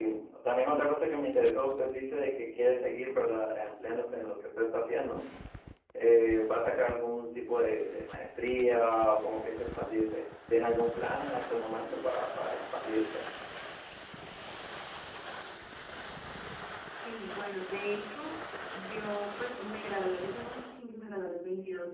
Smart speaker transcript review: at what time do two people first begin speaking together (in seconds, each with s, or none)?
none